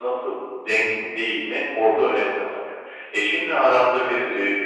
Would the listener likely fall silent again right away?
Yes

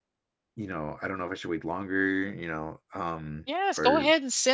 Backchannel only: No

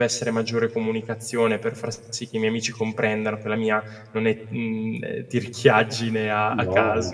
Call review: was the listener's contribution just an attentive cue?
No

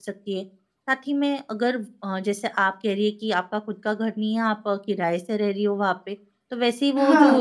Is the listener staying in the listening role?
Yes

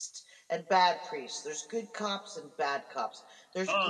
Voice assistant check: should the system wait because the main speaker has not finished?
Yes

